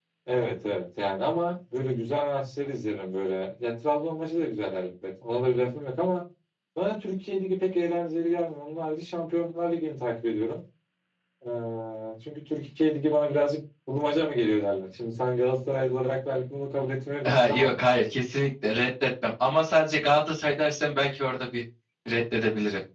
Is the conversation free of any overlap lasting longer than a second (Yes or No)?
Yes